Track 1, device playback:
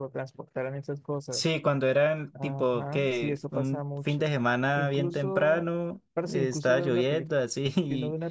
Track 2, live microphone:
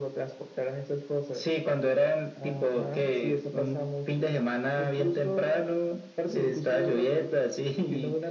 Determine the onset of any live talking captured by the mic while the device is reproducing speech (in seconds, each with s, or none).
none